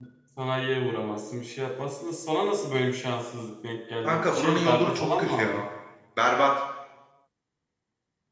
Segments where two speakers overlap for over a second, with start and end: 4.0-5.6

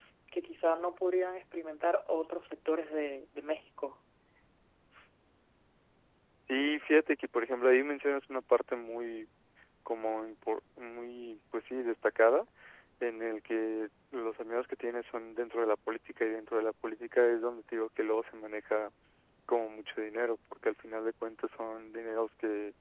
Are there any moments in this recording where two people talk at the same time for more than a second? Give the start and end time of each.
none

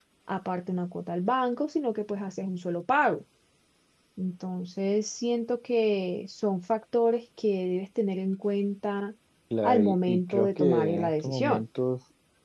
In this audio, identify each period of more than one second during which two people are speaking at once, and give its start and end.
9.6-11.6

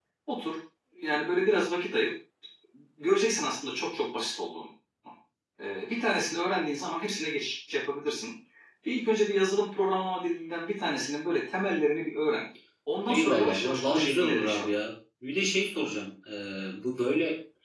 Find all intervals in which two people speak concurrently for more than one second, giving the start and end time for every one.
13.1-14.8

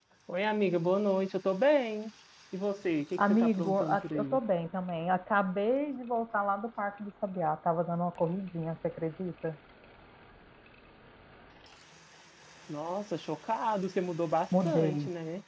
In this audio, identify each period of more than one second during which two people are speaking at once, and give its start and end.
3.2-4.4

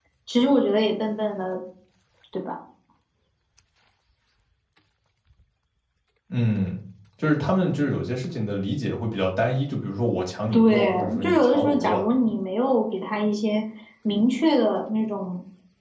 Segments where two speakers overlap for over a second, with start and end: 10.5-12.0

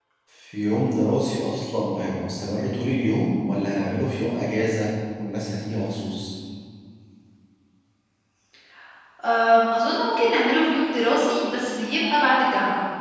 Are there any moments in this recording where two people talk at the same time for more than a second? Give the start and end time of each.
none

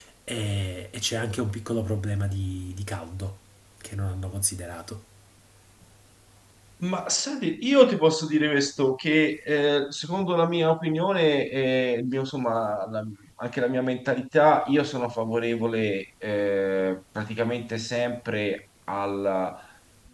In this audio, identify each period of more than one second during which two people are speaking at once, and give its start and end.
none

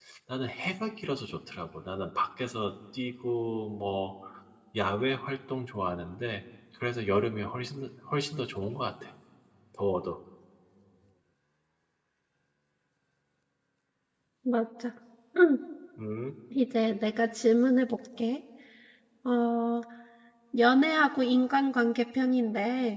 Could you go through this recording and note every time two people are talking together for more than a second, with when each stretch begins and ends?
none

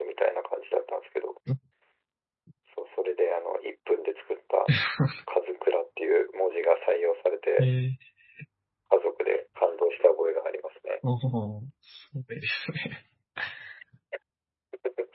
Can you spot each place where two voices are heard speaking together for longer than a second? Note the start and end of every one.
none

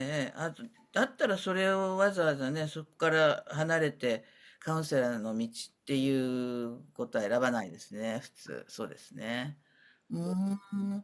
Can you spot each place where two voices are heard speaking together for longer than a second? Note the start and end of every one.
none

